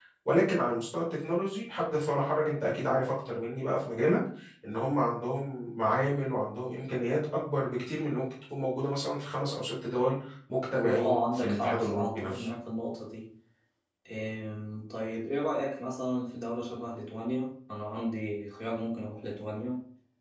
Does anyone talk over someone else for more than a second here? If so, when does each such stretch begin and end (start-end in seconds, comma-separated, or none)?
10.8-12.5